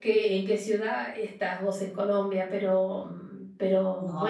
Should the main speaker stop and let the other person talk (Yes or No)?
Yes